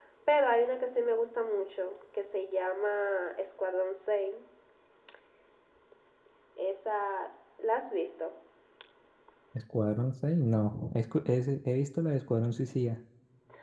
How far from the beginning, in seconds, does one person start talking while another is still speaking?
none

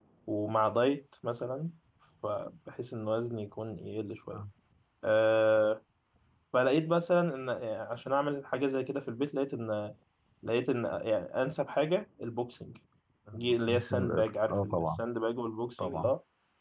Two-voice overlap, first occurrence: 13.3 s

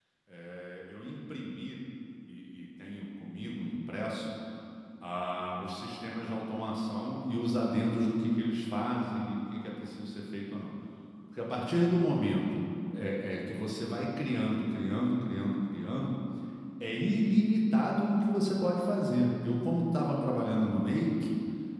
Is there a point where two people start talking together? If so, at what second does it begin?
none

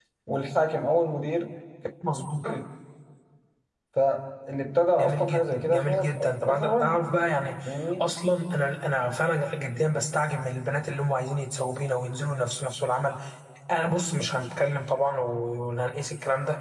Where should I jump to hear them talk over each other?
5.0 s

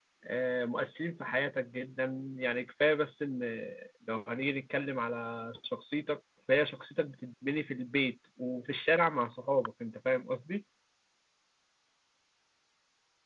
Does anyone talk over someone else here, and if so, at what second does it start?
none

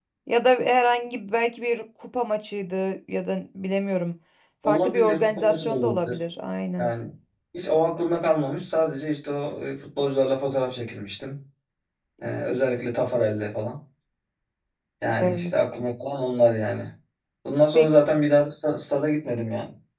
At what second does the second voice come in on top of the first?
4.6 s

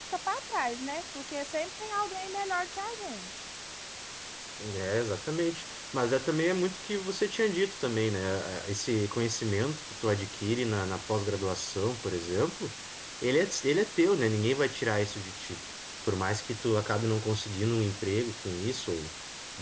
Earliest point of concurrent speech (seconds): none

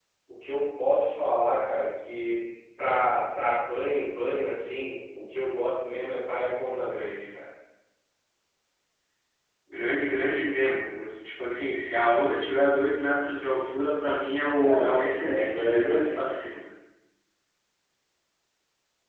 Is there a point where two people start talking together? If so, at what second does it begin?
14.6 s

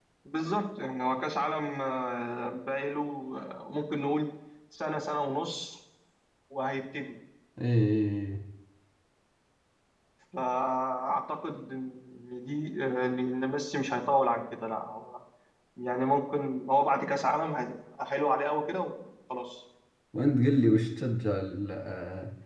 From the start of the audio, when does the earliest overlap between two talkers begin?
none

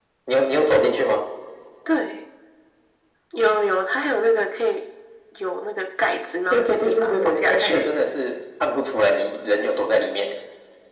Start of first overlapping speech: 6.5 s

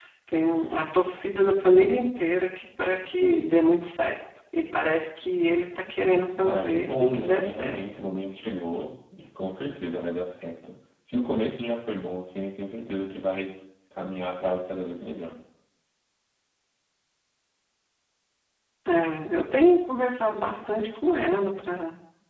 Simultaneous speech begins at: 6.4 s

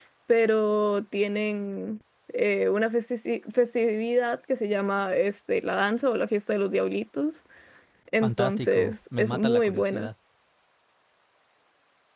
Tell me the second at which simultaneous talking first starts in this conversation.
8.2 s

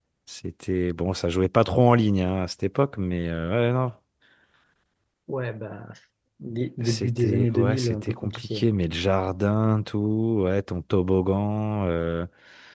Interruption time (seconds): 6.8 s

